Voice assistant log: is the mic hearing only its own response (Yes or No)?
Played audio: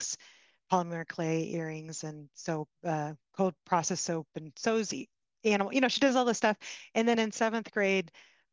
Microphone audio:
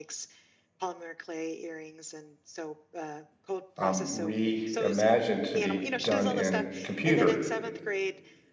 No